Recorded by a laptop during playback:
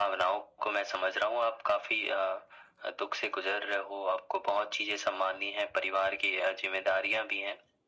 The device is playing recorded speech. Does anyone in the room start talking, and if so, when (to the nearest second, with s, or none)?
none